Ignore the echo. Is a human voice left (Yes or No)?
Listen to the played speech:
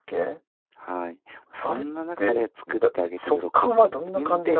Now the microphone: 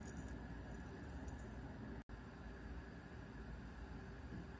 No